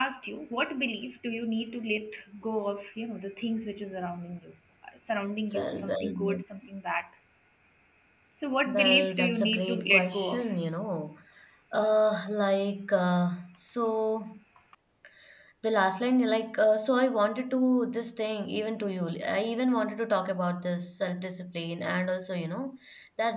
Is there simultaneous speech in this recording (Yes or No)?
Yes